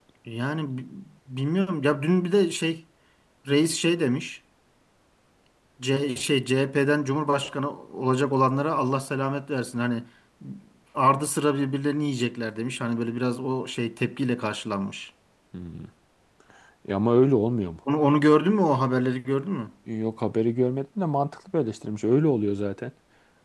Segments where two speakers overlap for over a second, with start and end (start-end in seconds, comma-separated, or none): none